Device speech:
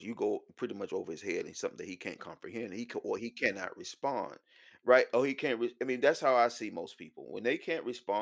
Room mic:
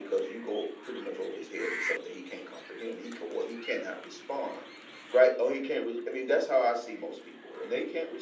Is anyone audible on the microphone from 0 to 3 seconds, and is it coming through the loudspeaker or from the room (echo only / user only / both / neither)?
echo only